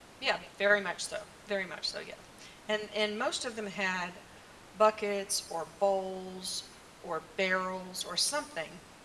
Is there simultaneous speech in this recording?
No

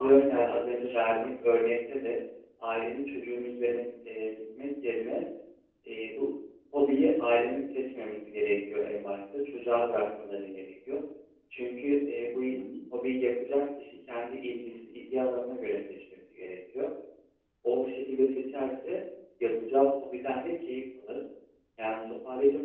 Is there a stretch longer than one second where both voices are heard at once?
Yes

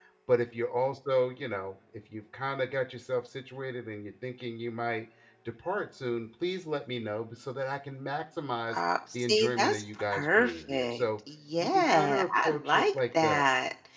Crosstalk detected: Yes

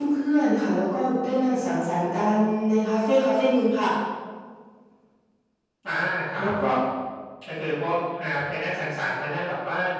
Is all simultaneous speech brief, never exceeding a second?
Yes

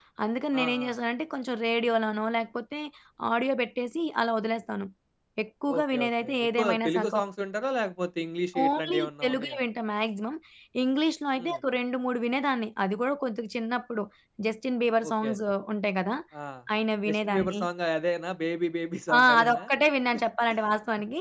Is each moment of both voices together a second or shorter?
No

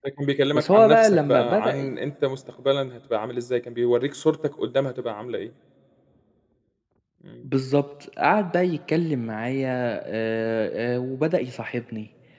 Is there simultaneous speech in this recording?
Yes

